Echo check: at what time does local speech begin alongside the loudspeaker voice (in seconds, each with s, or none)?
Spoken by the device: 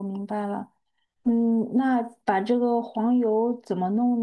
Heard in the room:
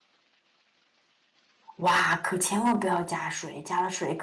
1.8 s